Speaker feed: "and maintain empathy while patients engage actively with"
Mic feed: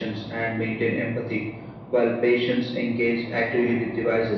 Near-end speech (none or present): none